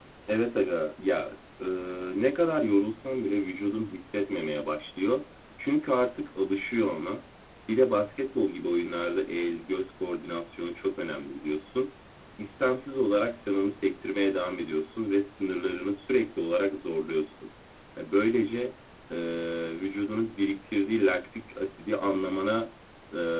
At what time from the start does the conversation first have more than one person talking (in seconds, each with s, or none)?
none